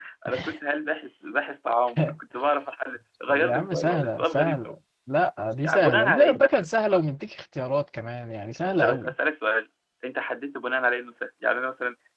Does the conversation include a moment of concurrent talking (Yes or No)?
Yes